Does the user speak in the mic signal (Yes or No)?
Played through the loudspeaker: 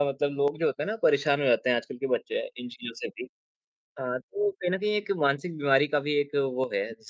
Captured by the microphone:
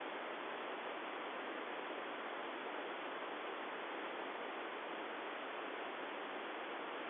No